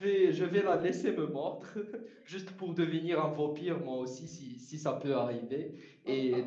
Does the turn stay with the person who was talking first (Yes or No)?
Yes